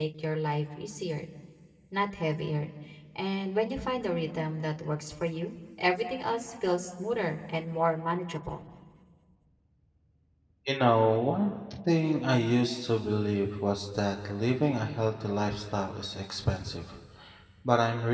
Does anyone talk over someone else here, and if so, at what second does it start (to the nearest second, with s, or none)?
none